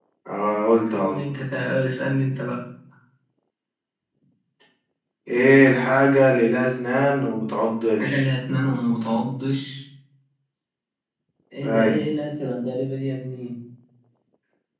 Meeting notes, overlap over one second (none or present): none